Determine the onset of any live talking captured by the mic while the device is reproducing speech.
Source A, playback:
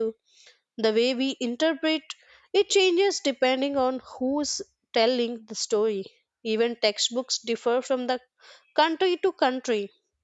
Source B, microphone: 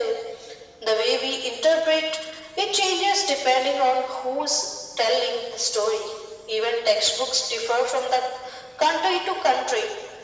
none

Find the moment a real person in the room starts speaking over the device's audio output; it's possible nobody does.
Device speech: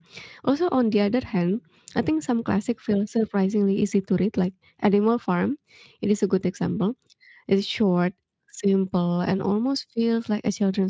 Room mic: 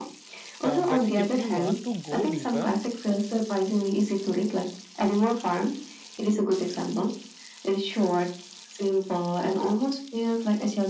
0.6 s

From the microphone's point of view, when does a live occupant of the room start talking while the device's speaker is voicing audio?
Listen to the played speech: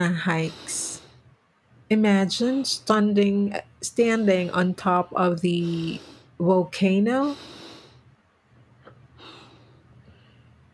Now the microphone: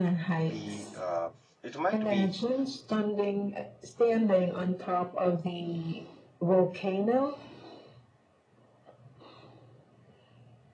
0.5 s

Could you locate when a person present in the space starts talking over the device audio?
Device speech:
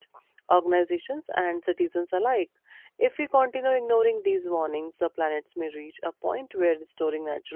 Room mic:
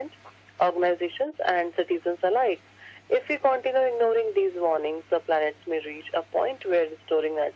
none

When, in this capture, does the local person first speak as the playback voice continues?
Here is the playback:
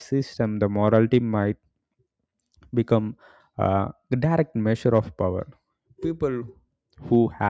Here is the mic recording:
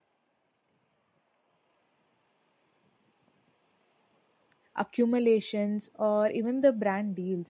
4.8 s

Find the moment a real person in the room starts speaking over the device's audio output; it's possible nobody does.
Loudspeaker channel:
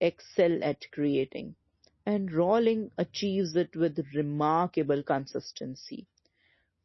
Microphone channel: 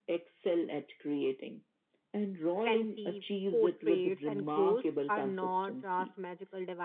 2.6 s

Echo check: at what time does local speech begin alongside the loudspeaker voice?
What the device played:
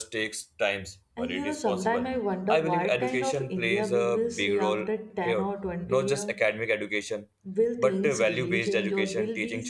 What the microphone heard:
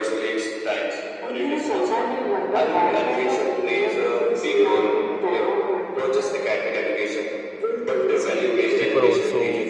8.8 s

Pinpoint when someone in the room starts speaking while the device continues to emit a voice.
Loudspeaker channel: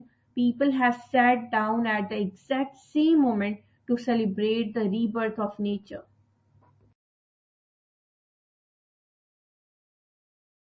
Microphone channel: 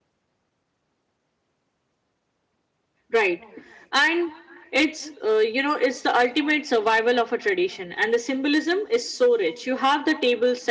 3.1 s

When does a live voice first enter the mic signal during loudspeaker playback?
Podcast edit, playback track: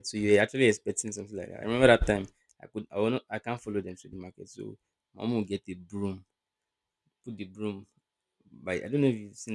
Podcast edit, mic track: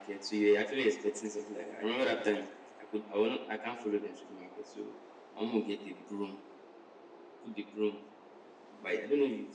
none

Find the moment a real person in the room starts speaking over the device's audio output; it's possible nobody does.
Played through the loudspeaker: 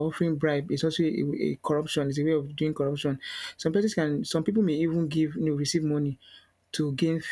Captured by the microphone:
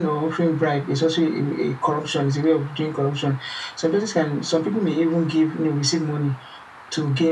none

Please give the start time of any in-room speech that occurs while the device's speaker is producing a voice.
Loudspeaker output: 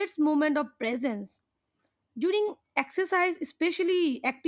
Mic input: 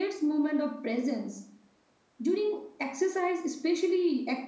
none

